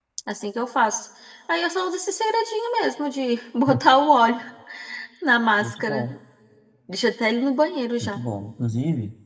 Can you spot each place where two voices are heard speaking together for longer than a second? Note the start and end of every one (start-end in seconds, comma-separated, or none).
none